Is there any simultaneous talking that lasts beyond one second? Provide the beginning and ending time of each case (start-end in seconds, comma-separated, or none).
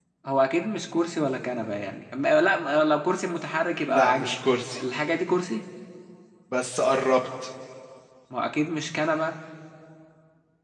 none